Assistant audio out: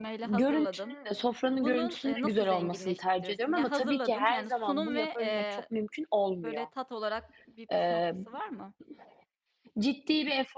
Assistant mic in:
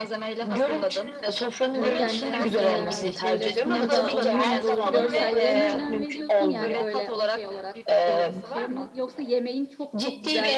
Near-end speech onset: 2 s

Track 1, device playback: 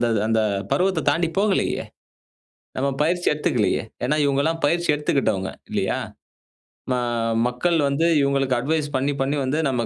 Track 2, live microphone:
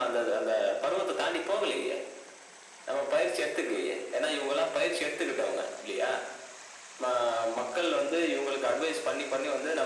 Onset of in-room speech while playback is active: none

